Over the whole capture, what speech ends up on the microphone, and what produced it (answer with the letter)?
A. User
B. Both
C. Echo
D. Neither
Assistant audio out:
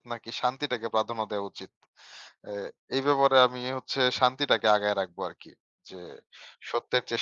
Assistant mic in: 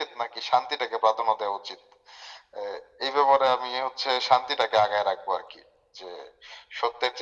C